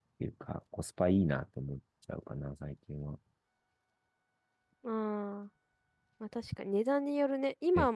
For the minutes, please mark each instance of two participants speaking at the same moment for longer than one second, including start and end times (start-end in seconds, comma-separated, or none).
none